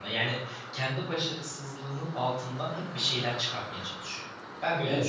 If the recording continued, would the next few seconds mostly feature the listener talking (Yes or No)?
Yes